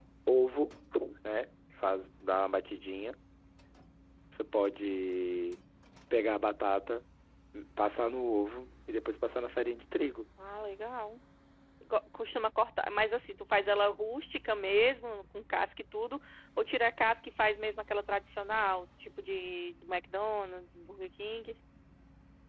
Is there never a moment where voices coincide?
Yes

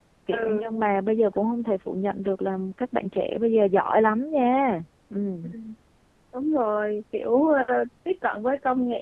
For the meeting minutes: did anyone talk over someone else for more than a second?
No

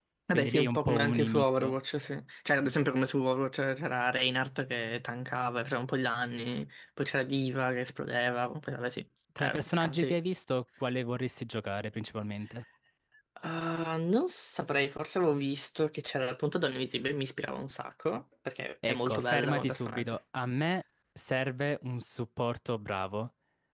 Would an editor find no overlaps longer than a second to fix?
No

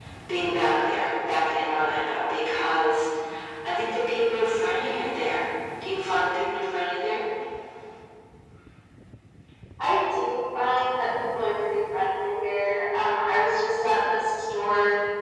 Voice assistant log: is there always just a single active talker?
Yes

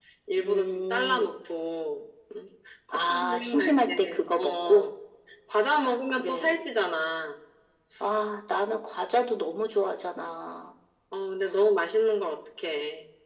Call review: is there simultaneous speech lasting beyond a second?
Yes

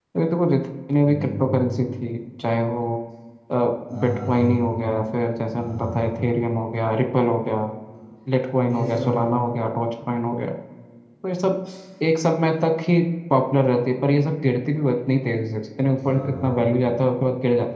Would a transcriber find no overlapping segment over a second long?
Yes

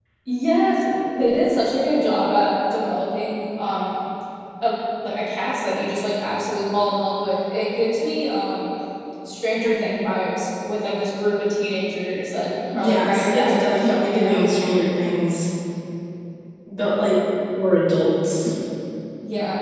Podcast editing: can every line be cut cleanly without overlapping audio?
No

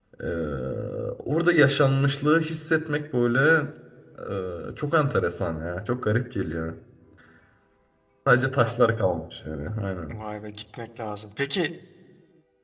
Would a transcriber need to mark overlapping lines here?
No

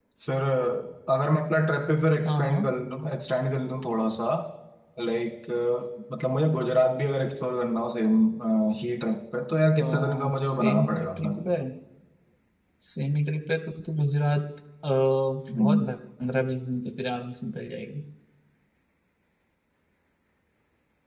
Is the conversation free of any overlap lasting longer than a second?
No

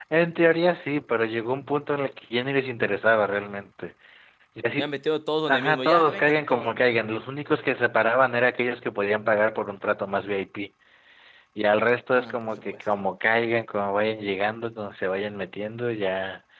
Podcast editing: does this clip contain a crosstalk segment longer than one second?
Yes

